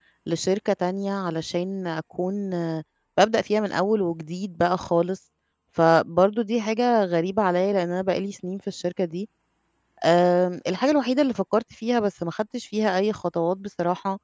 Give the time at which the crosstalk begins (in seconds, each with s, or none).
none